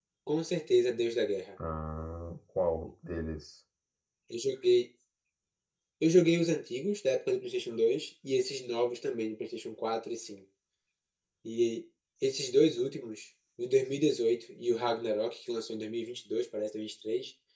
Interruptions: none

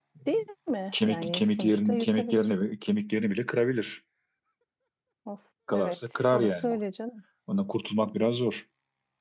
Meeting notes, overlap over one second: present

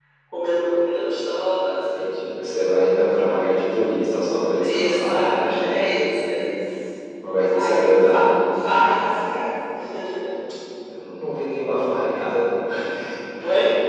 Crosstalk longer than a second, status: present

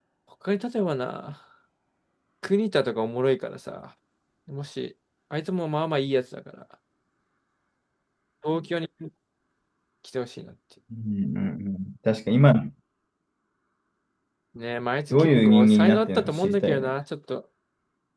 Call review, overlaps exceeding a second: present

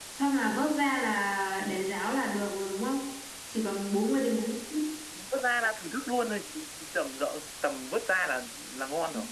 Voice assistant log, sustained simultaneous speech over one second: none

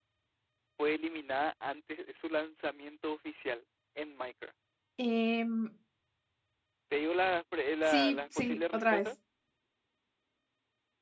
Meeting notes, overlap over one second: present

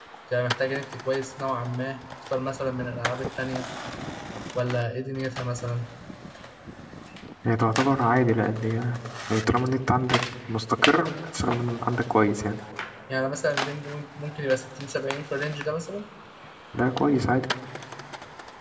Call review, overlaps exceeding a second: none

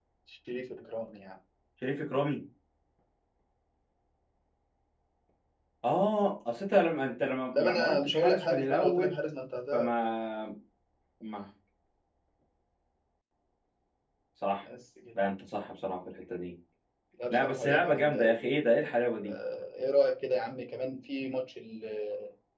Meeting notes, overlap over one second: present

